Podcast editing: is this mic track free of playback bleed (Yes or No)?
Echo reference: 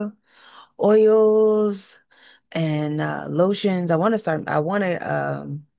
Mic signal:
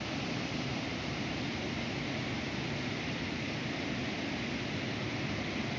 Yes